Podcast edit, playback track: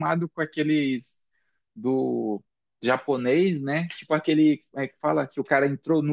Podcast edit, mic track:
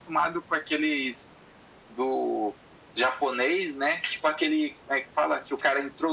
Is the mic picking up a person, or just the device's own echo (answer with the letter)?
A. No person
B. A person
A